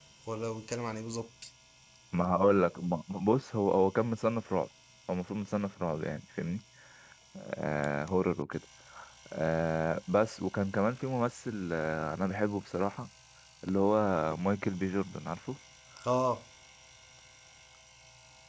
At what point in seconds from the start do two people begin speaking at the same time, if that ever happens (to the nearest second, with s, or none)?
none